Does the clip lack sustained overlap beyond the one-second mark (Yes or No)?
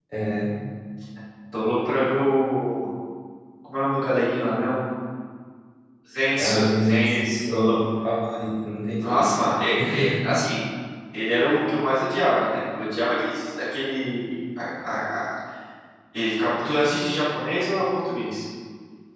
No